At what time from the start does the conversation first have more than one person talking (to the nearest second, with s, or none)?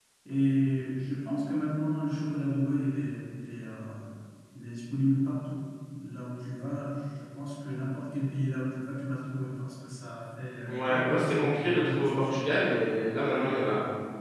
11 s